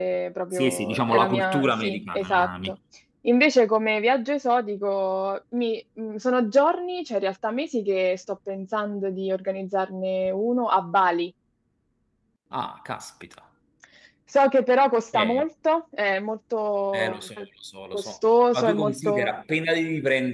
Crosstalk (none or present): present